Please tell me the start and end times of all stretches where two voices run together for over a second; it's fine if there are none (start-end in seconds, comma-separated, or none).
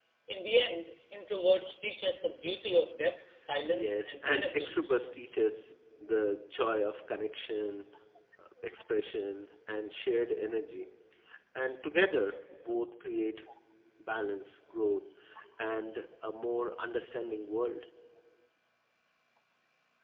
3.7-5.0